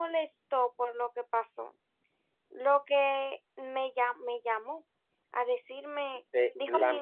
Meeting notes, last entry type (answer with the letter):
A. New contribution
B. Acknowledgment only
A